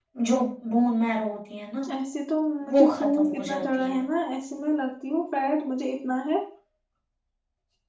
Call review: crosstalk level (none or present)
present